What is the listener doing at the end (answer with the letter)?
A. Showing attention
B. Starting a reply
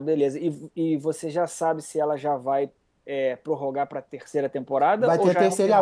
B